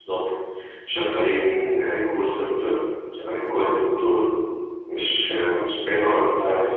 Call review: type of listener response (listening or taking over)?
taking over